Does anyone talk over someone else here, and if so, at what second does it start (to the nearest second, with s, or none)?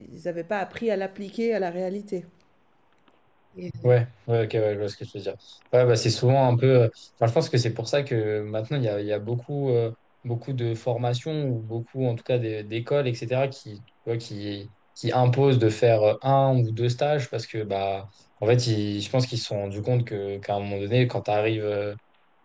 none